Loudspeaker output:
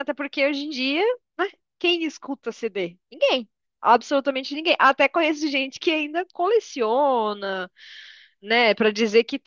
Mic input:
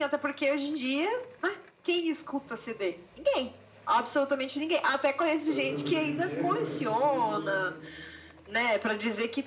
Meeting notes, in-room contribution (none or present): present